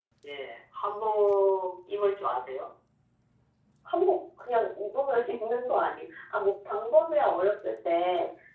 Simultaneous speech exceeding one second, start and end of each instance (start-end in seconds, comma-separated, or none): none